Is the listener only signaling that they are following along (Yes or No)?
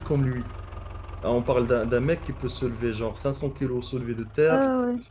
No